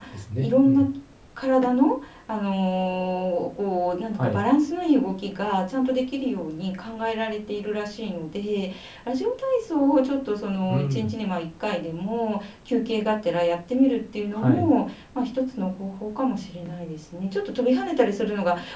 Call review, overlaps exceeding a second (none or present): none